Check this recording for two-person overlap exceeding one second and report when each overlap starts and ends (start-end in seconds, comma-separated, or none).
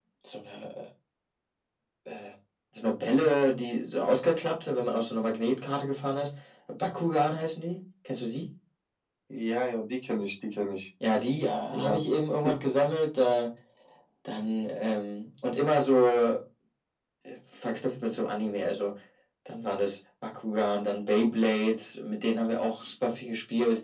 none